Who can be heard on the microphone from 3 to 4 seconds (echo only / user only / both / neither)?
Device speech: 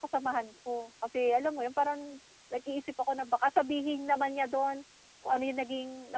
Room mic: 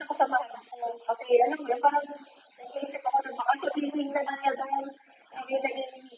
echo only